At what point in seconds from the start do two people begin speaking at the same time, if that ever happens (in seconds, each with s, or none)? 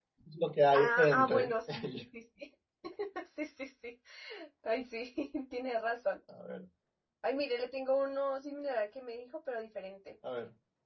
0.7 s